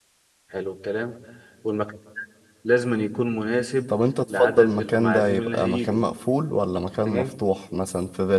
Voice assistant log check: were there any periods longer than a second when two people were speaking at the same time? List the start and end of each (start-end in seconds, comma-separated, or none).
4.3-6.0